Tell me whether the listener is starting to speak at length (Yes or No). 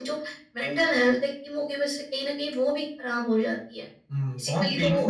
Yes